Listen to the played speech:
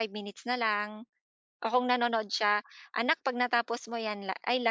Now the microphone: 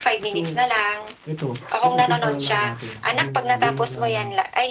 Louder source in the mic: echo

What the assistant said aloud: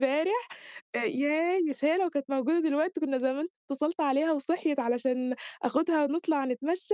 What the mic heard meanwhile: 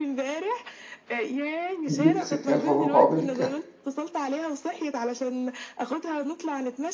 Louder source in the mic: user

